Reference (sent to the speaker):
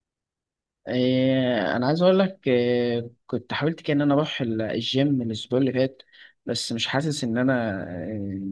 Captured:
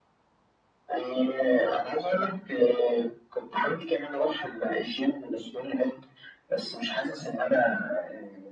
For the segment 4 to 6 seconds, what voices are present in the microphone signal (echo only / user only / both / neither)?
echo only